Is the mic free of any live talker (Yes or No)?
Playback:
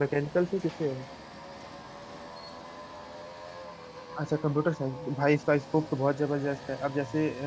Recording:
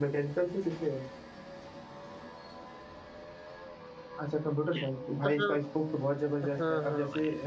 No